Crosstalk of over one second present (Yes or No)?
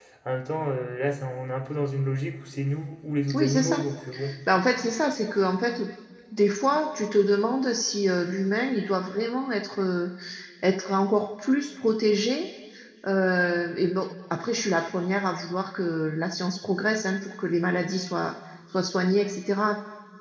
No